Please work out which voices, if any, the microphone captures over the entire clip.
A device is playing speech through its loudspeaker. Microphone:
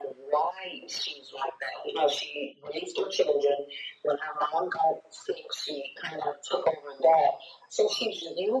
echo only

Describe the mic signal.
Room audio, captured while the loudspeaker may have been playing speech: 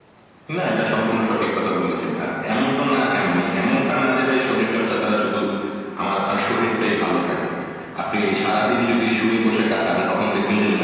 echo only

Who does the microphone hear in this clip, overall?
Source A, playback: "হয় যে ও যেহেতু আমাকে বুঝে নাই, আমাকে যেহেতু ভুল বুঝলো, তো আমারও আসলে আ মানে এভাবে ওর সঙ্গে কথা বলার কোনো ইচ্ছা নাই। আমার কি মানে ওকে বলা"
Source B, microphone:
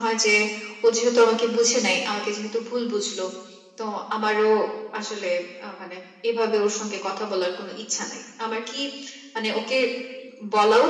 echo only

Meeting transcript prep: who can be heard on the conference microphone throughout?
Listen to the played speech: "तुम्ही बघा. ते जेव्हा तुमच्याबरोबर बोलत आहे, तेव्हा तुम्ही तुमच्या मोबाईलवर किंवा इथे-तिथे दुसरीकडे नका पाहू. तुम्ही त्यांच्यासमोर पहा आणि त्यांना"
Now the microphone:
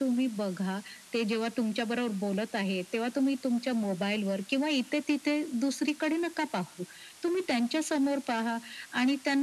echo only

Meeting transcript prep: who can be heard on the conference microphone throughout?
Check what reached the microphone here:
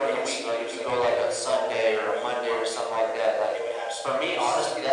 echo only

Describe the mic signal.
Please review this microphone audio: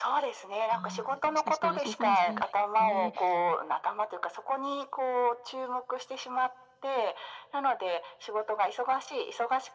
both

